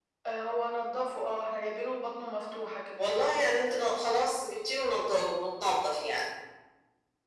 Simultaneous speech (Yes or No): No